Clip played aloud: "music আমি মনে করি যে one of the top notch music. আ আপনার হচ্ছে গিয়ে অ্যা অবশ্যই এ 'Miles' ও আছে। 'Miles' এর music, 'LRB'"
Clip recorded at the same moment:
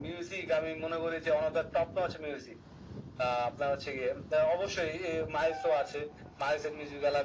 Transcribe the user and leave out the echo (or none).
none